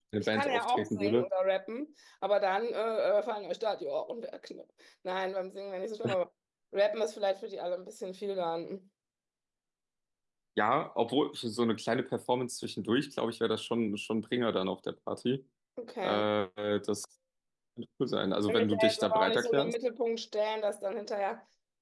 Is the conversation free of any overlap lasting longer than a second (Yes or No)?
No